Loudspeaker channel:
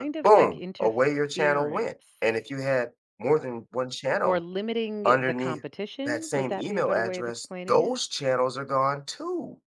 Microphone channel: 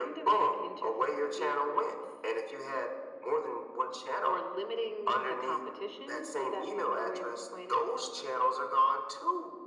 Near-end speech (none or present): none